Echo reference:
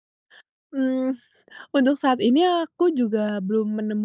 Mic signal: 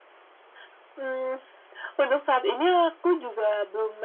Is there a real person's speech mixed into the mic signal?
No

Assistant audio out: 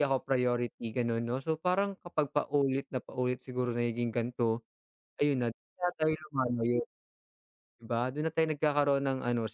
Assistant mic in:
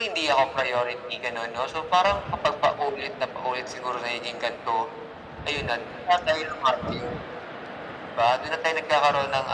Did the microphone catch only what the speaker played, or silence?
Yes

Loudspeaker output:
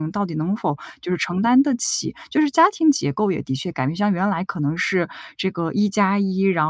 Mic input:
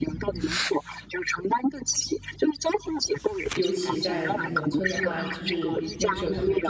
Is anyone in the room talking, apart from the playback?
Yes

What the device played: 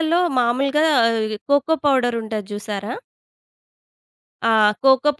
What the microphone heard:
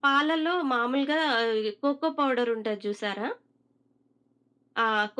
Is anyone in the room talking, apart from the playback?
No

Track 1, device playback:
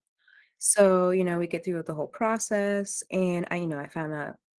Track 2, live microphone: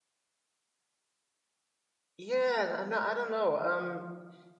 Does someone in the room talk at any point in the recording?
Yes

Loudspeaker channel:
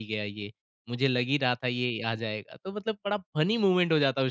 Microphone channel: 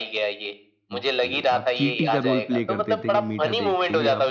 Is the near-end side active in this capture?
Yes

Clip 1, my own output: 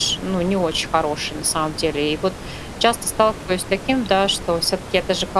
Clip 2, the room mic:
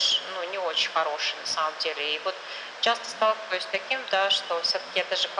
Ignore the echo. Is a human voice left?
No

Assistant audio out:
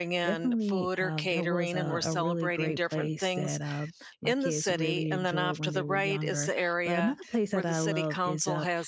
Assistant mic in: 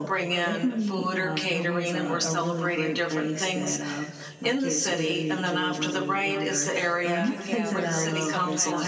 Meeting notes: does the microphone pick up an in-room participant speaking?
Yes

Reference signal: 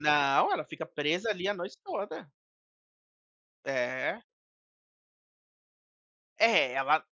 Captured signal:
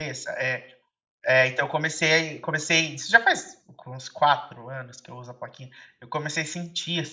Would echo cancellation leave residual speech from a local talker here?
Yes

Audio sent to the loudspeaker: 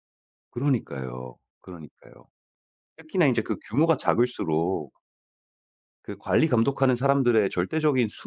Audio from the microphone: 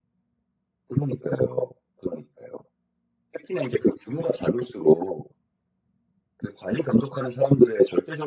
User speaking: No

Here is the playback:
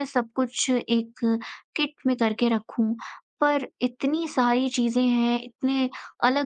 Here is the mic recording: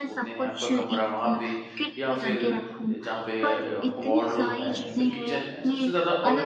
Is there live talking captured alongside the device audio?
Yes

